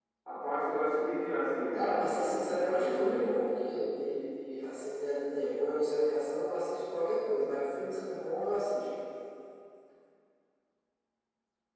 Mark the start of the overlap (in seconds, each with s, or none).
1.7 s